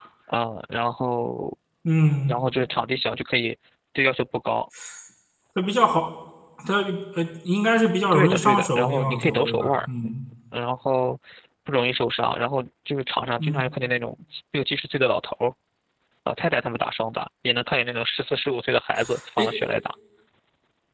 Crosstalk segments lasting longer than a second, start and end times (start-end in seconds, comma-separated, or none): 8.1-9.8